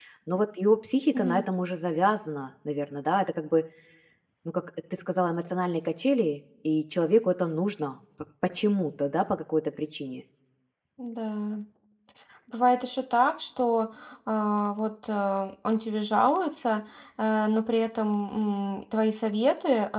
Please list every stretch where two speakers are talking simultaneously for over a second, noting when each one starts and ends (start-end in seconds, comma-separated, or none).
none